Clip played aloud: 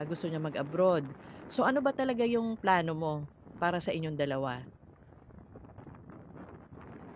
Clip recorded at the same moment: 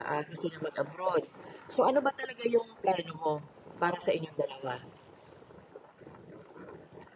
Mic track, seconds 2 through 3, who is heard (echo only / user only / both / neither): echo only